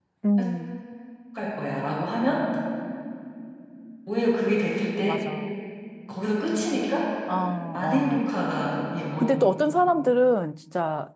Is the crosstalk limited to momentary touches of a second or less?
Yes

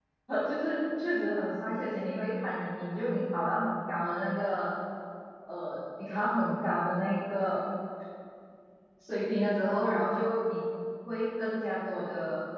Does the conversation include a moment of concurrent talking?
No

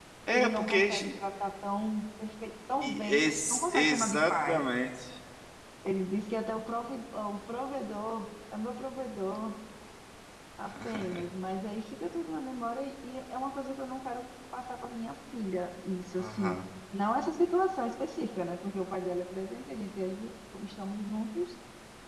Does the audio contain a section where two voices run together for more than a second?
Yes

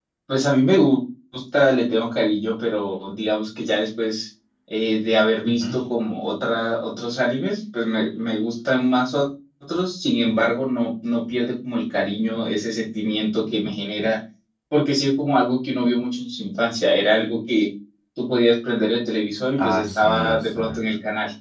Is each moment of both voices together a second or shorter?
No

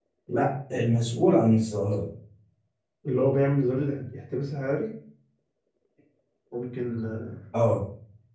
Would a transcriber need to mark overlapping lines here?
No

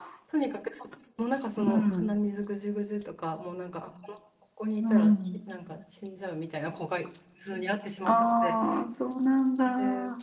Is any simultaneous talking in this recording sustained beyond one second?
No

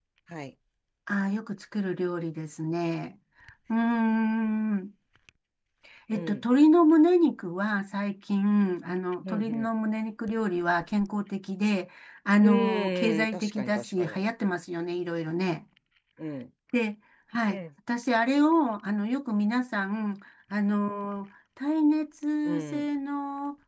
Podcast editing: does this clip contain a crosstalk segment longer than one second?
Yes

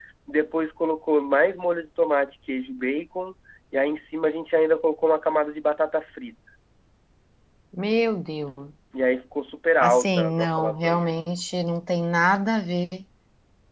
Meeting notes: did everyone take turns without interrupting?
No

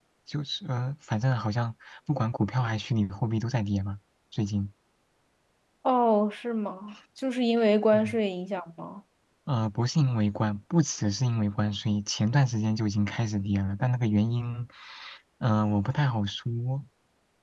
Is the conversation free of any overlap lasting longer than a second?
Yes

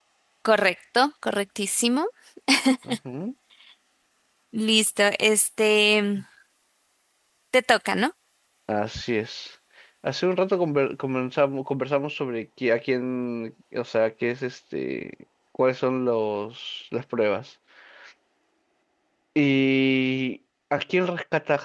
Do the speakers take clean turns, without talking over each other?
Yes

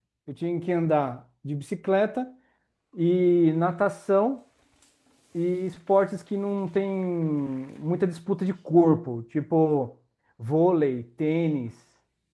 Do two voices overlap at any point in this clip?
No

